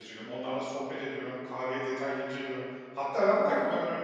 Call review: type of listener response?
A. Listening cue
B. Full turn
A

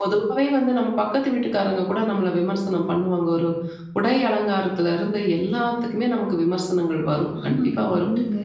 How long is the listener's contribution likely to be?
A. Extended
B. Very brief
B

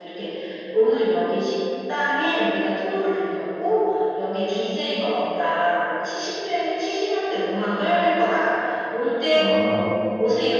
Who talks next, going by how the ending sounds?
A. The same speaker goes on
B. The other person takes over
A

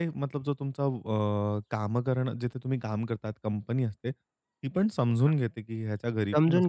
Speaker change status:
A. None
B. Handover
B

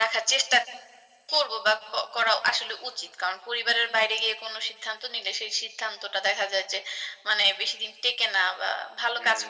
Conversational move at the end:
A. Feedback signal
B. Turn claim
B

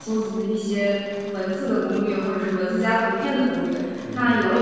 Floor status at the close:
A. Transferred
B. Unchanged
B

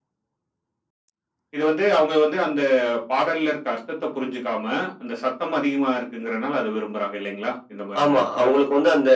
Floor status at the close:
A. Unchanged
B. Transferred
B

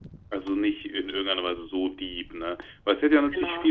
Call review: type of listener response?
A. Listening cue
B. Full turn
A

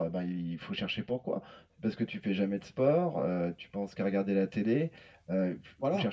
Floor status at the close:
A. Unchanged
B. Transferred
A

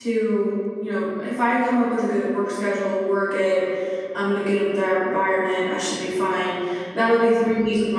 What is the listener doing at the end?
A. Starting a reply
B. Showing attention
B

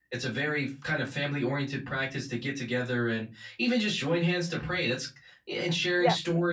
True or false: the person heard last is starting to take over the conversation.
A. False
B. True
A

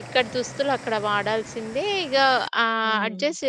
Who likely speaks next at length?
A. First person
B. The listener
A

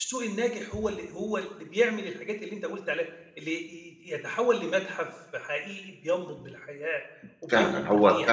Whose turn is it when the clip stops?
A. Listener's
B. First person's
A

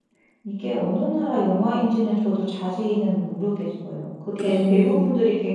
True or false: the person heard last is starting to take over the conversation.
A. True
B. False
B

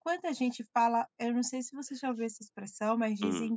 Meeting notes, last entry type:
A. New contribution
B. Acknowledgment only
B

